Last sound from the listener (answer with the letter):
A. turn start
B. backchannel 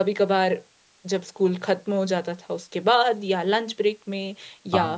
B